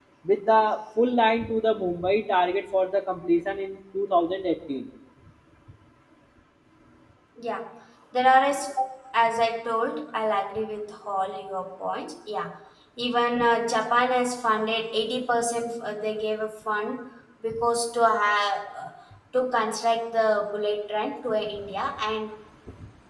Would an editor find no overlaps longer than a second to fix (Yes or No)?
Yes